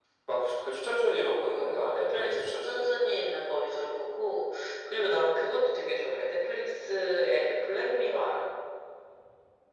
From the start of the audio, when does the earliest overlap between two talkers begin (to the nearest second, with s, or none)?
2 s